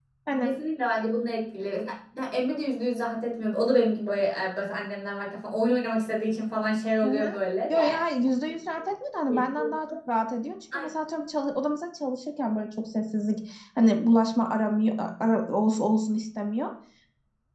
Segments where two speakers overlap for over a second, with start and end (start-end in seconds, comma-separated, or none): none